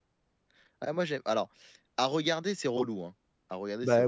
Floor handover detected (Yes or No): Yes